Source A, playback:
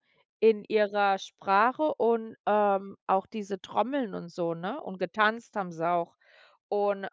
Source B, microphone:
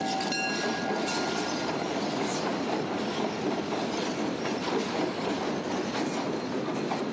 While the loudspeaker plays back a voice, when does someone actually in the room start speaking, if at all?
none

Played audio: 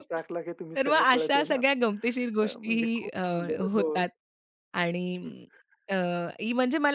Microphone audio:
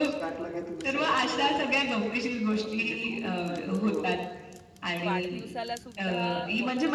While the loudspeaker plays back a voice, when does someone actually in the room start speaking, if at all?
5.0 s

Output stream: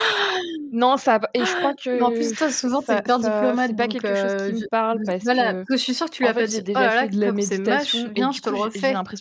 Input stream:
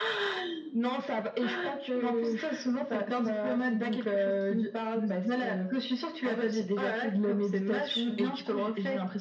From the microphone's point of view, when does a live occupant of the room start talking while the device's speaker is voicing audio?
none

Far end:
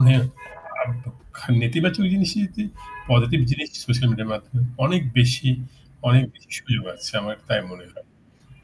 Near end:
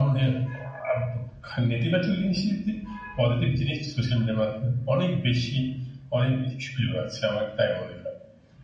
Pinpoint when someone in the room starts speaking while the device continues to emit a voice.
none

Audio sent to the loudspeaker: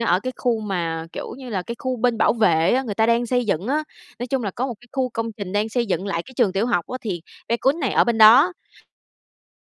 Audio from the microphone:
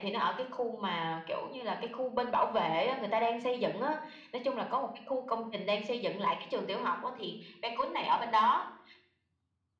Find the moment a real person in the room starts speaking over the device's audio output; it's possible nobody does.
none

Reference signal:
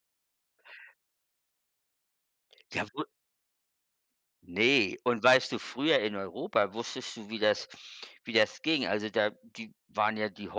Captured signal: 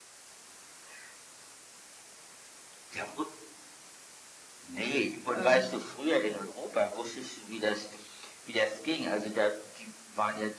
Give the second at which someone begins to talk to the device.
5.3 s

